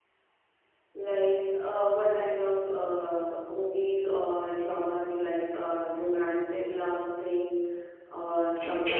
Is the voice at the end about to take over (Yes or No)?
Yes